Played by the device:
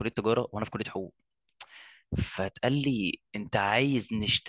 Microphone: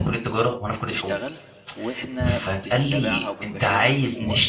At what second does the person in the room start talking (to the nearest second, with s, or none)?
1 s